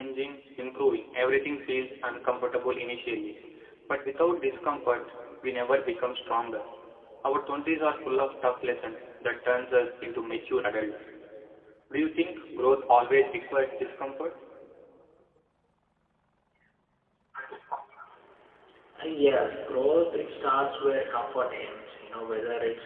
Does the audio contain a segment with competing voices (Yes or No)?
No